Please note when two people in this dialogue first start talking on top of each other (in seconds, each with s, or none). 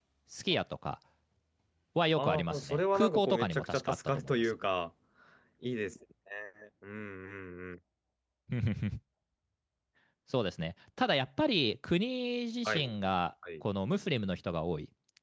2.2 s